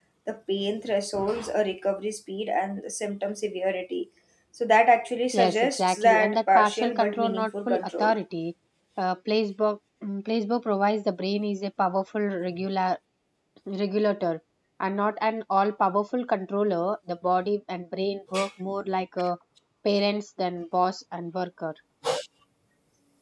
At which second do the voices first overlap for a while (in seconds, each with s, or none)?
5.3 s